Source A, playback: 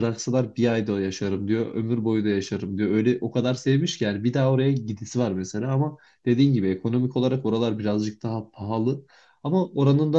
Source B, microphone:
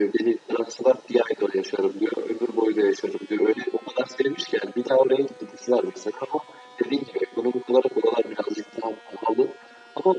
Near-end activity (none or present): none